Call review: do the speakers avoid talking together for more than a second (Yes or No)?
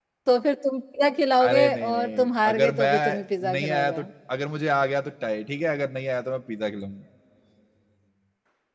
No